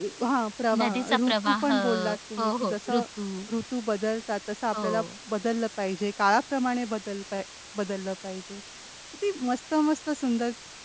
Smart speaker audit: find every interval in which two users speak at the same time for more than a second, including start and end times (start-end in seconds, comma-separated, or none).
0.8-3.0